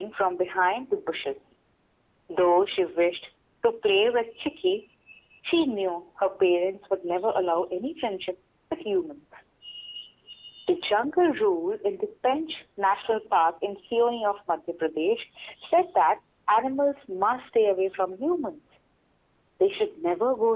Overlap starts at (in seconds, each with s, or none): none